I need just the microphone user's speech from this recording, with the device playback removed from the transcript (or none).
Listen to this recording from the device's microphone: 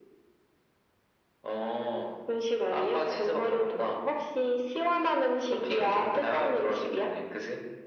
none